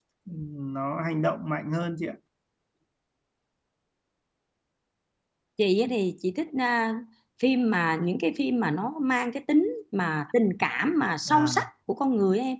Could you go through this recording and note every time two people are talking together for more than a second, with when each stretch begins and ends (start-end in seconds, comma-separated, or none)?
none